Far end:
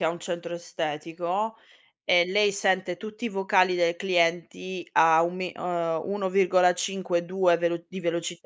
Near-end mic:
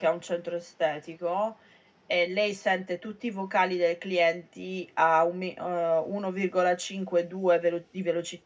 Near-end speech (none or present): none